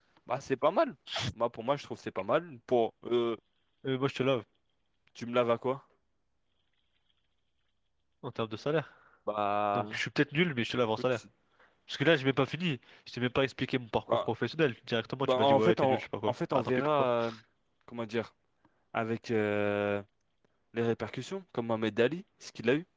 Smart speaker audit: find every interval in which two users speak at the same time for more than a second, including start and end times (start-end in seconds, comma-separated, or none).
15.2-17.1